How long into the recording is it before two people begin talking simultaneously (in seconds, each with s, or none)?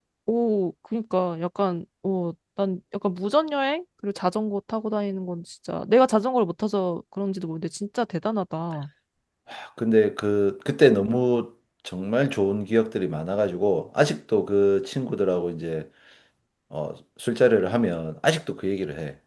none